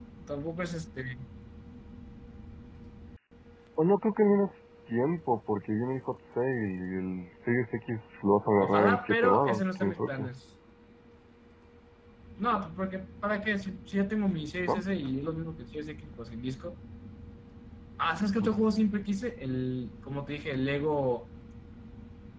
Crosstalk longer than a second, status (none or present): present